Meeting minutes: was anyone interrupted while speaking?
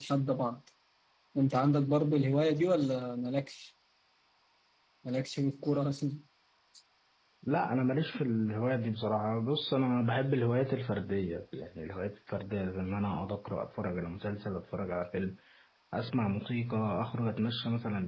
No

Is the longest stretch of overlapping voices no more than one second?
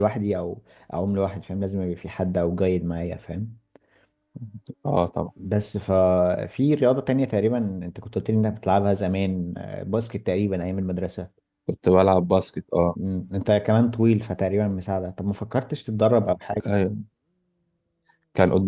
Yes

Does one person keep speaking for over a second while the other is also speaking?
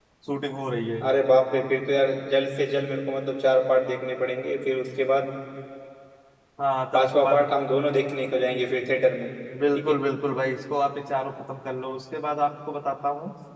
No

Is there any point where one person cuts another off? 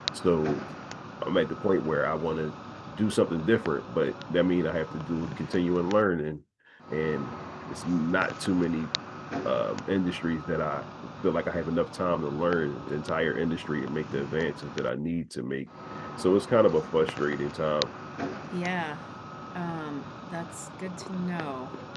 No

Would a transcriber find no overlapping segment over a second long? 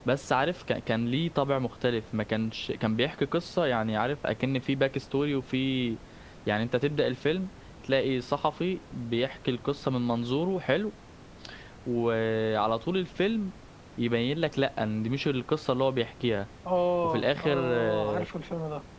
No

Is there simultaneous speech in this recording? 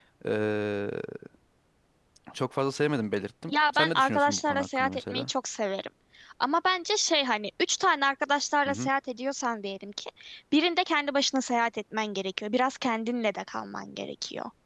Yes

